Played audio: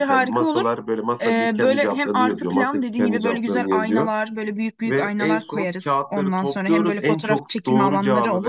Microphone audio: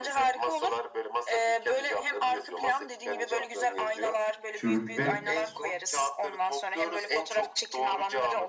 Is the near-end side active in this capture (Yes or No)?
Yes